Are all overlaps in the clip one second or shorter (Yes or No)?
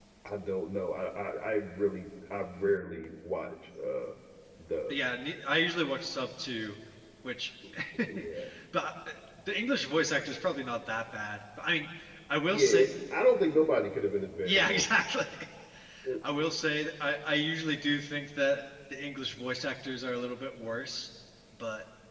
Yes